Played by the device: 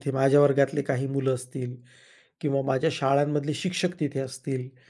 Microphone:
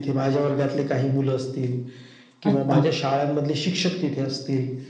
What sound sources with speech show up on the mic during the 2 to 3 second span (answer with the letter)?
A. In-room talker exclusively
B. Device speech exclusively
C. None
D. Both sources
D